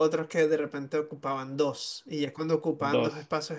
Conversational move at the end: listening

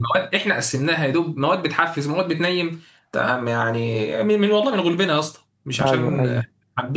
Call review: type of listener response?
listening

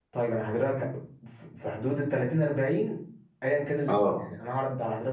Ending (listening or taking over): listening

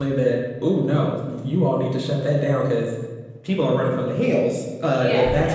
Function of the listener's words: listening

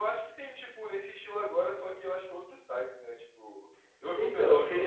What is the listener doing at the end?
taking over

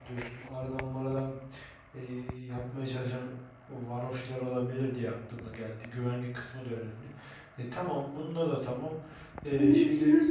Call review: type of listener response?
taking over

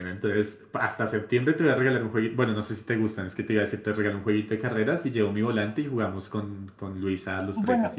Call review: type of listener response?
taking over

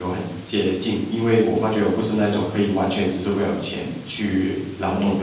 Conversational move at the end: taking over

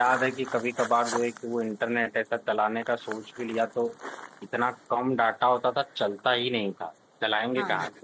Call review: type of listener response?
listening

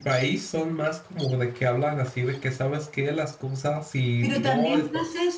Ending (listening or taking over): taking over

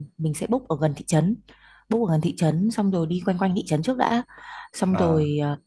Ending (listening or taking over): listening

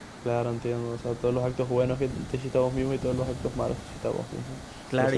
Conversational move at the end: taking over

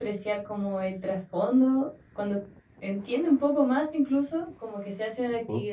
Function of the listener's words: listening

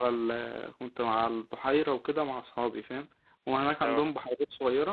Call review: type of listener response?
listening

